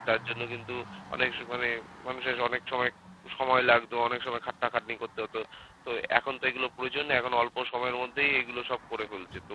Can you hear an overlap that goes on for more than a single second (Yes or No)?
No